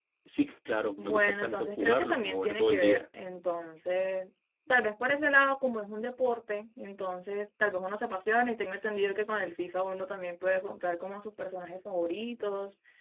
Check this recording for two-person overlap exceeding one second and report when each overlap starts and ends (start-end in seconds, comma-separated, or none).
1.0-3.1